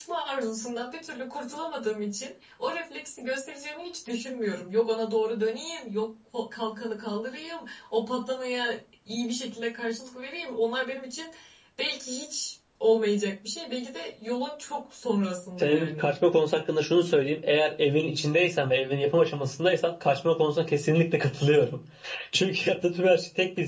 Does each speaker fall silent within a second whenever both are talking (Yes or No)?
Yes